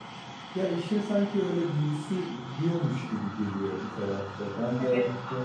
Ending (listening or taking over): taking over